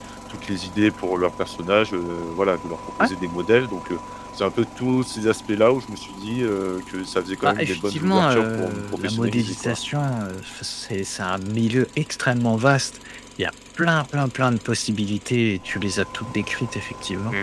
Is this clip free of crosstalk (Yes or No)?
No